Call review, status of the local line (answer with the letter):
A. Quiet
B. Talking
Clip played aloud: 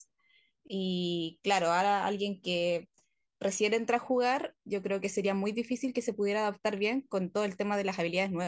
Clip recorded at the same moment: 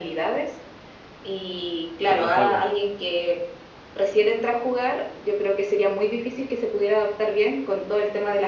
B